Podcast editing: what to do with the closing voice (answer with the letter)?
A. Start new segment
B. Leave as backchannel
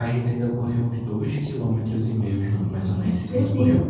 B